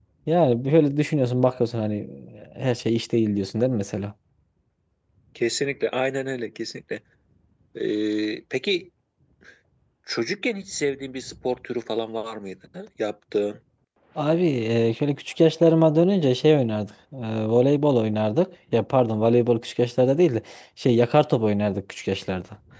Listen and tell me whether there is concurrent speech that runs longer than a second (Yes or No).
No